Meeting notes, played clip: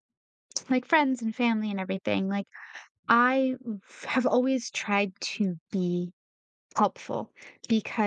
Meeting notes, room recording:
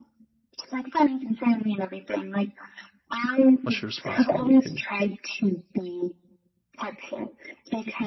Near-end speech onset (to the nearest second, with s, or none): 4 s